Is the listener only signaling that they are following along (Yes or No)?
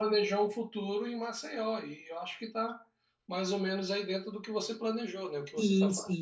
No